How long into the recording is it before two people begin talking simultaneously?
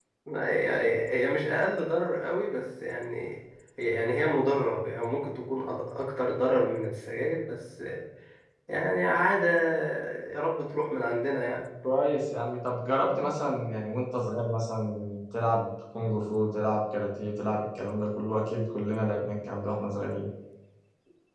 none

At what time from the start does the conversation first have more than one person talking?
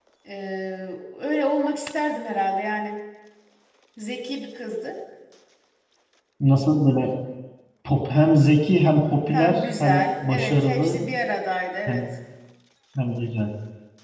9.3 s

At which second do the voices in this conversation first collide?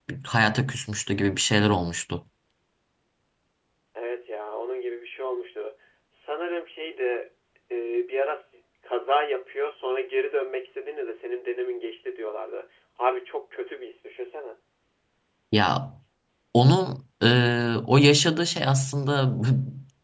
none

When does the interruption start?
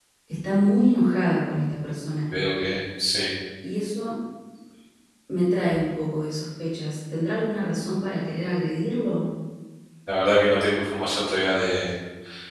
none

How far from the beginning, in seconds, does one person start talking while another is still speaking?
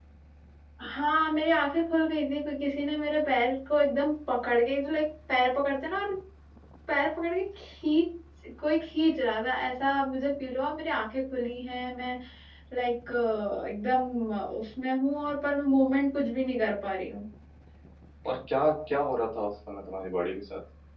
none

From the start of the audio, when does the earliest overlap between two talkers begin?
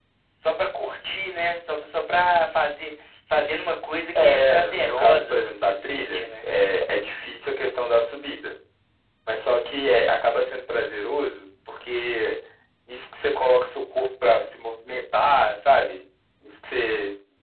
4.2 s

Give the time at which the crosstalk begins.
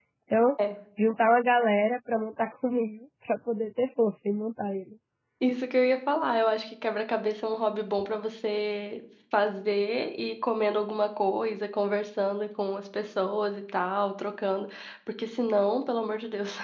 none

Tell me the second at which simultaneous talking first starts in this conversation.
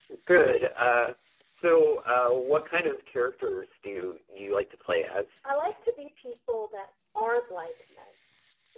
none

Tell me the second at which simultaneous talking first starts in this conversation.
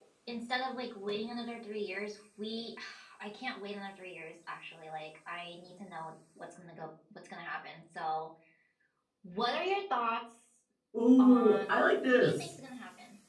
11.2 s

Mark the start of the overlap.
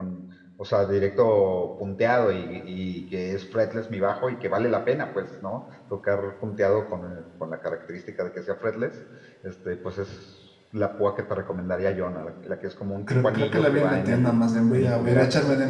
13.1 s

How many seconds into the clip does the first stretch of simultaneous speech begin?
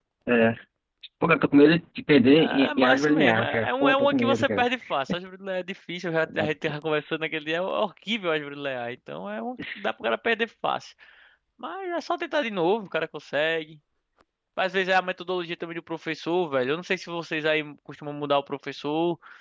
2.4 s

